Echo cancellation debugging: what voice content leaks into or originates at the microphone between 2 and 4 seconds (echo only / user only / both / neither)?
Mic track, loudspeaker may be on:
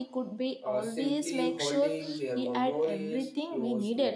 both